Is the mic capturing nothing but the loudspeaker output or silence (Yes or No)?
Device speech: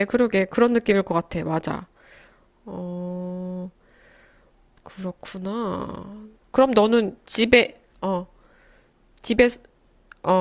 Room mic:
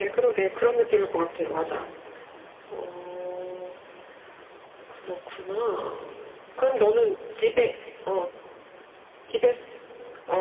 Yes